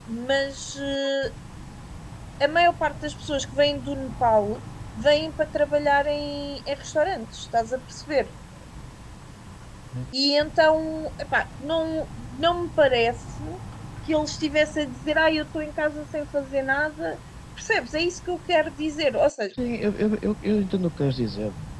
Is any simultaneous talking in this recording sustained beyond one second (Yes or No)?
No